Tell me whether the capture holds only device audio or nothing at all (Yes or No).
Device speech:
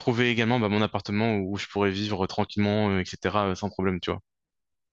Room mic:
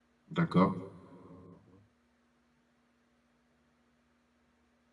No